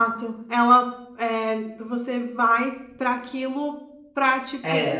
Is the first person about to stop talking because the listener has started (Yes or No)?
No